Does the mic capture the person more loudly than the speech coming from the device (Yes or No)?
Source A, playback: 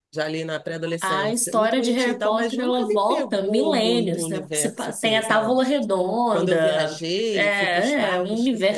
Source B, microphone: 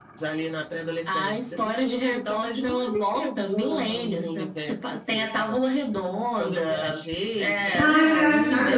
Yes